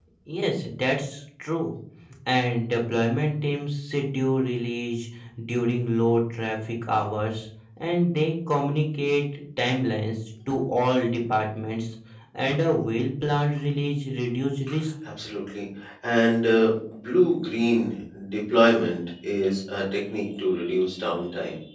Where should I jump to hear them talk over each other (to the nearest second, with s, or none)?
none